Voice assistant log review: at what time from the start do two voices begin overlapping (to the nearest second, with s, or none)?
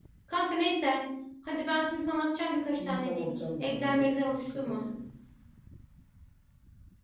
3 s